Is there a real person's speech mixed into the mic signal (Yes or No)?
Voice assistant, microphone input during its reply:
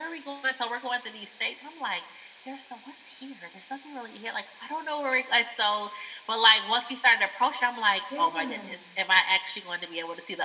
Yes